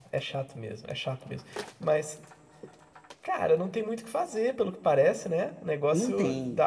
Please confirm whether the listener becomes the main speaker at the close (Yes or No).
No